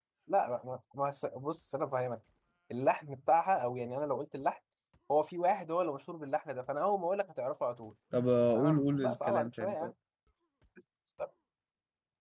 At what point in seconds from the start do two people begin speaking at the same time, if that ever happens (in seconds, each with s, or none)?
8.6 s